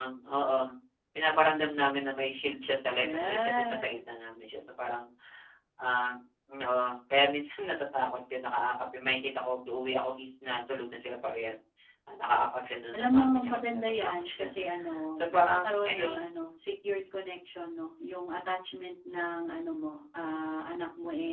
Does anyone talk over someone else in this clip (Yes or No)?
Yes